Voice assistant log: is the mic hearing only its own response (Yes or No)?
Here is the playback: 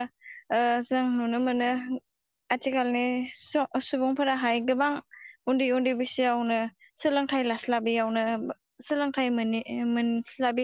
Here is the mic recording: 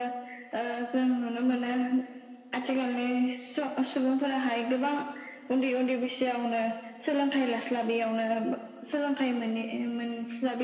Yes